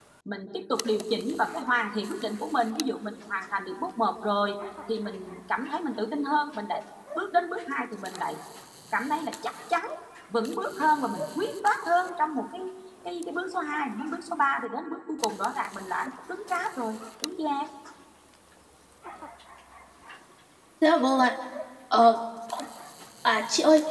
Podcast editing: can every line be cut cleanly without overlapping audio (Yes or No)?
Yes